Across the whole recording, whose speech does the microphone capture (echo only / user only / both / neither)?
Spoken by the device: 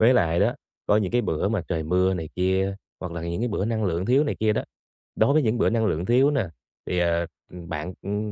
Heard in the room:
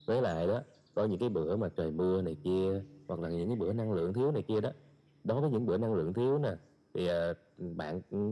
echo only